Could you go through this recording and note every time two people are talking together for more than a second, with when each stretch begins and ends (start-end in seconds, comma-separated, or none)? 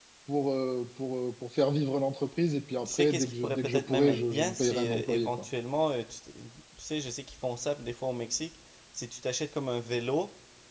2.9-5.4